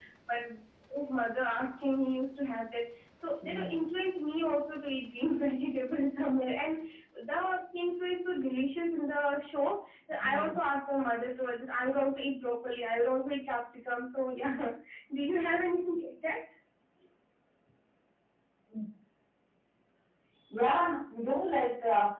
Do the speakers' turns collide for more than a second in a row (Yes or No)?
No